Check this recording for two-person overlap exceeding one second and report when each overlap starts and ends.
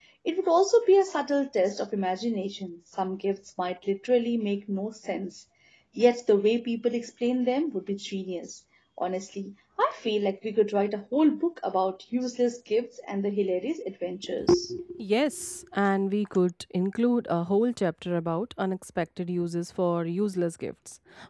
none

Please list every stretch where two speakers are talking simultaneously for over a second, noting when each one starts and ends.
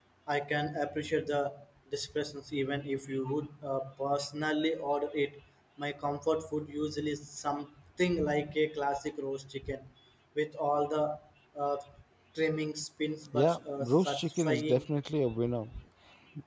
13.3-14.9

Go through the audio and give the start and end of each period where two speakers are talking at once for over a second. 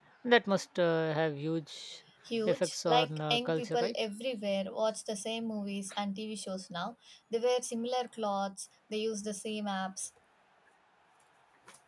2.5-3.9

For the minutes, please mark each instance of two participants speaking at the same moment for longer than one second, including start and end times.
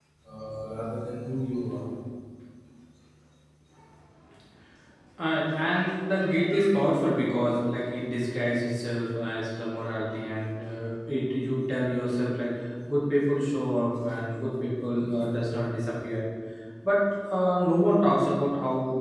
none

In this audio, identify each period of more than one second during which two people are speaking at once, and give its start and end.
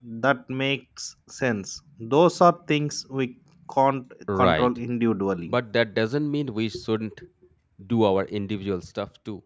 none

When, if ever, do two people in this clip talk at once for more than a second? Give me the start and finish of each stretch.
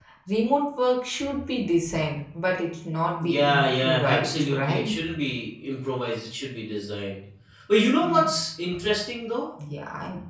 3.2-4.9

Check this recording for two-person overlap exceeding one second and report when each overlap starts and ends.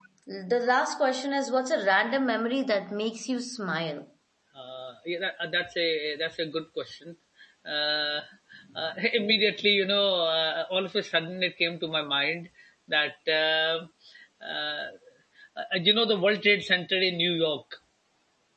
none

